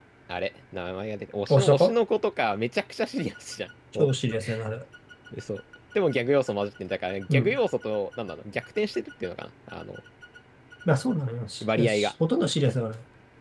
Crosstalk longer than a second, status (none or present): none